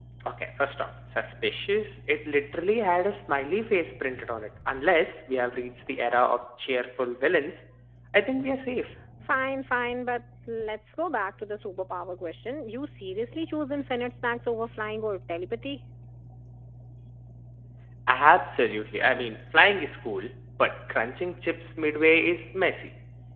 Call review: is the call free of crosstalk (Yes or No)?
Yes